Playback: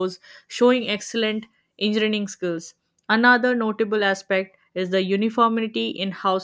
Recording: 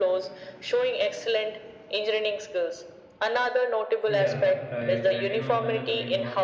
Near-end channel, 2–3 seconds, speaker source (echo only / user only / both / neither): echo only